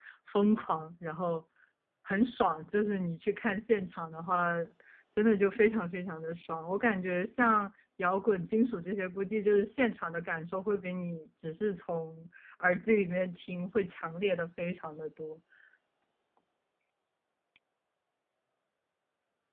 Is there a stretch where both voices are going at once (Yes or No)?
No